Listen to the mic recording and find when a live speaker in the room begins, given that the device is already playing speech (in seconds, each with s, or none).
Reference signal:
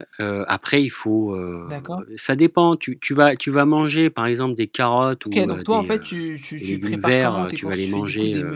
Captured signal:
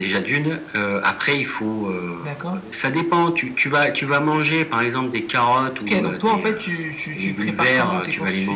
none